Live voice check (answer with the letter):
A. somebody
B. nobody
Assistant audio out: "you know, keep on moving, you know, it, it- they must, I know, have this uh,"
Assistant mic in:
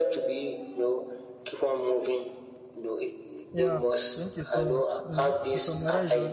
A